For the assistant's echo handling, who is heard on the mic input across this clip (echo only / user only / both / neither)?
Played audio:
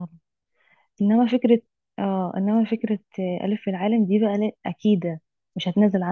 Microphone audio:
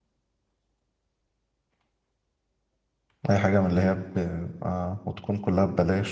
user only